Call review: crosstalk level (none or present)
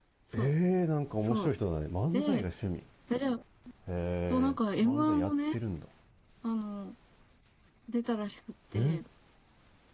present